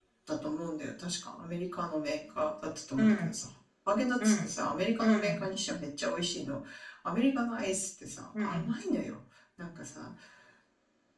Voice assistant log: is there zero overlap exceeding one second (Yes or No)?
Yes